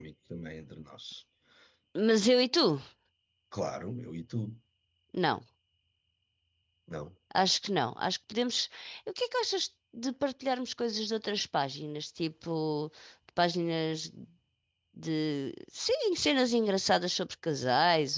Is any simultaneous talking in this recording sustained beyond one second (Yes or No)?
No